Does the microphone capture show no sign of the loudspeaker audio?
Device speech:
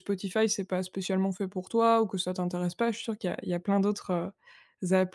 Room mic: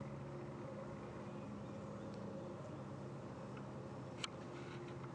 Yes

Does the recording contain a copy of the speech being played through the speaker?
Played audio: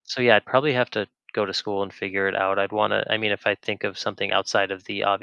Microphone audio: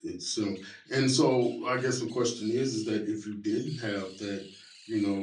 No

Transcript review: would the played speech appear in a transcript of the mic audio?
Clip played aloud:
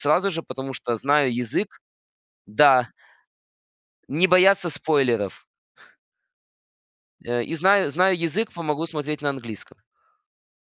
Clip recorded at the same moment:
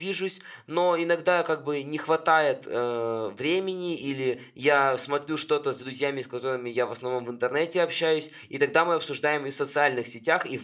No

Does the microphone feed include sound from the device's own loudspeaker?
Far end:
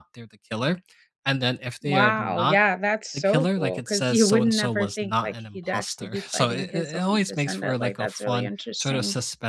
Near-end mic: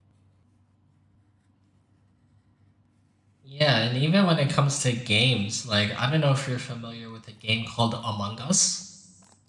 No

